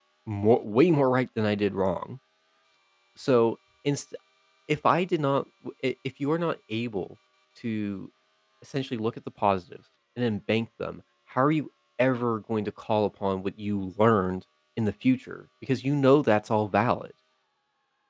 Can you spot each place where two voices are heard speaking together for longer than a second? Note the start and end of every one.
none

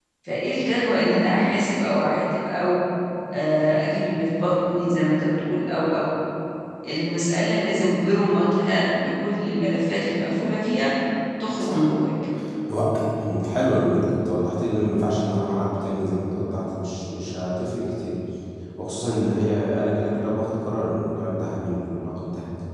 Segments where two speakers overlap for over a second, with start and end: none

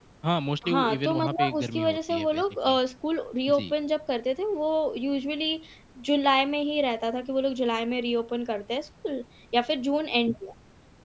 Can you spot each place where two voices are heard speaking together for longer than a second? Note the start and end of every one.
0.7-2.8

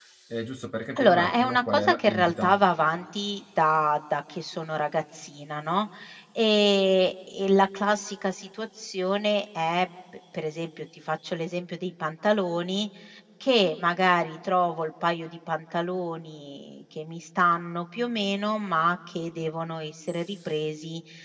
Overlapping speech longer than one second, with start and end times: 1.0-2.6

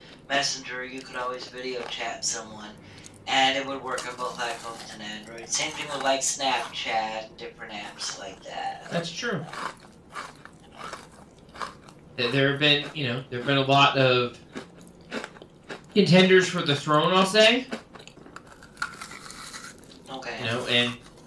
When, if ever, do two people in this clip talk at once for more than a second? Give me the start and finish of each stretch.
none

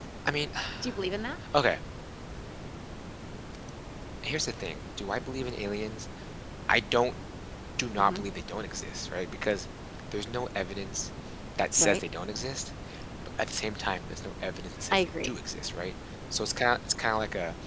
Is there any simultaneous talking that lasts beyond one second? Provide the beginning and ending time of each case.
none

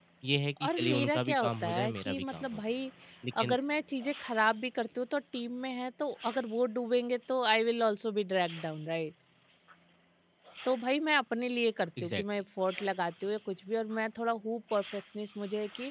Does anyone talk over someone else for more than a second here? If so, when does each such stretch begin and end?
0.6-2.6

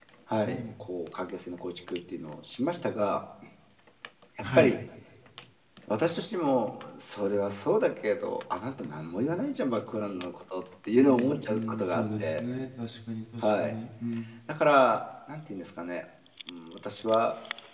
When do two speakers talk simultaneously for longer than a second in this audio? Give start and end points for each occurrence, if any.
10.9-12.4

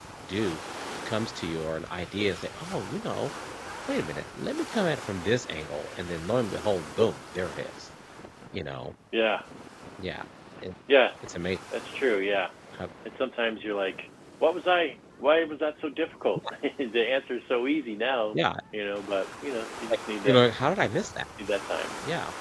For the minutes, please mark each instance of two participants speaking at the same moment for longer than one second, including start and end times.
none

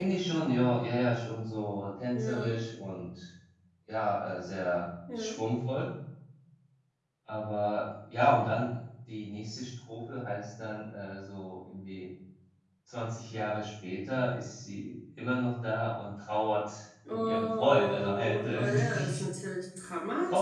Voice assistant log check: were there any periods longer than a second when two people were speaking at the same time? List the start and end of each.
17.1-19.2

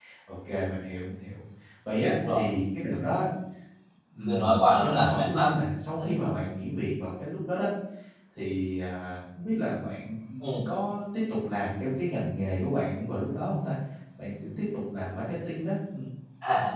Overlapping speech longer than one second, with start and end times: 4.2-5.5

